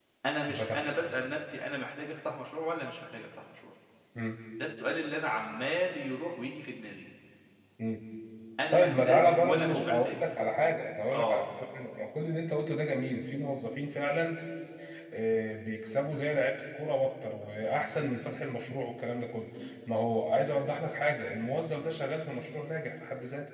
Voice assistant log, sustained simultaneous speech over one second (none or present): present